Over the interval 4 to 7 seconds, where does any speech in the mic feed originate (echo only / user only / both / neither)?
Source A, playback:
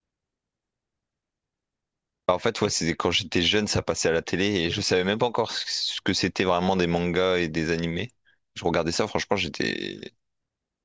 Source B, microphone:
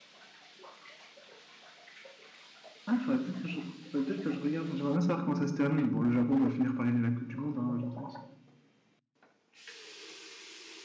user only